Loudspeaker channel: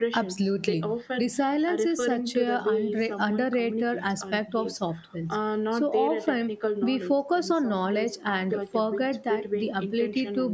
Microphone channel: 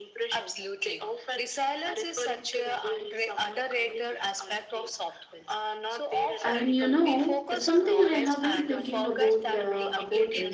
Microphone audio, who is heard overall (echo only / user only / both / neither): both